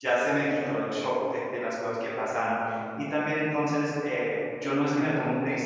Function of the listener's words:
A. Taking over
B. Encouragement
B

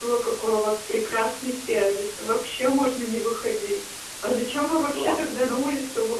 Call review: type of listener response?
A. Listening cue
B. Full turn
A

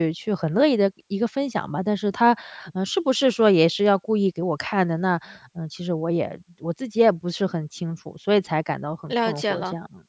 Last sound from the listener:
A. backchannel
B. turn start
B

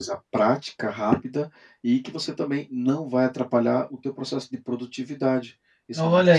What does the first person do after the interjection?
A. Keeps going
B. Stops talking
B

